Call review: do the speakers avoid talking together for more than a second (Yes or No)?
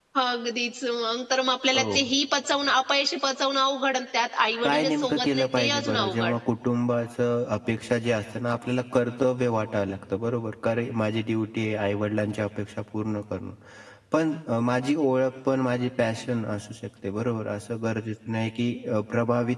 No